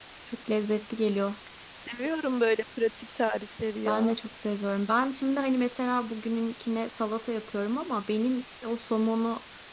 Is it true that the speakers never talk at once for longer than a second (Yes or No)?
Yes